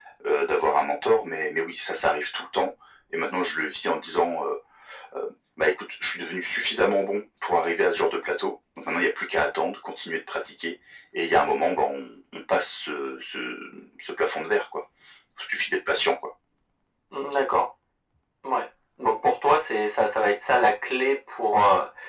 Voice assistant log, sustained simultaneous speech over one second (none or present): none